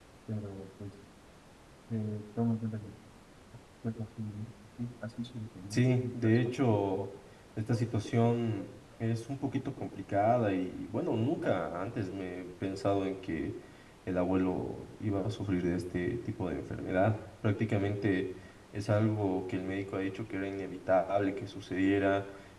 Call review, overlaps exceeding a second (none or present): present